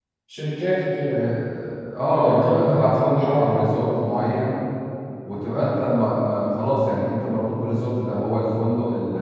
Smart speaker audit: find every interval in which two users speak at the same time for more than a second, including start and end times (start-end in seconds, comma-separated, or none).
2.0-3.6